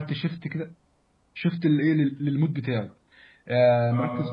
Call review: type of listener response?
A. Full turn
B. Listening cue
B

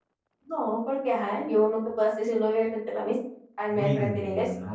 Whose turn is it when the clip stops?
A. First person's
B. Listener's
B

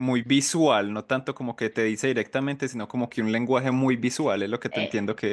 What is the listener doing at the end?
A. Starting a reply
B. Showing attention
A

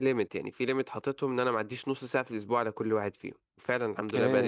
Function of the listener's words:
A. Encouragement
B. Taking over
B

